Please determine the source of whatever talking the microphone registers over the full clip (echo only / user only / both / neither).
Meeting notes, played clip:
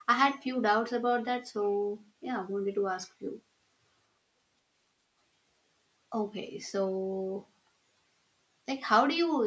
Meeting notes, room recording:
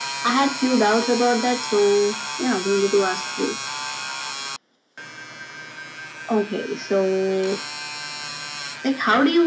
echo only